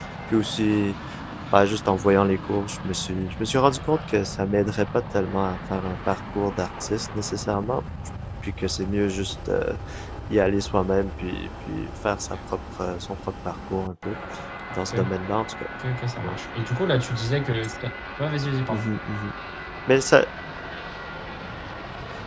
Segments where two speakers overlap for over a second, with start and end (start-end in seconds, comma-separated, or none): none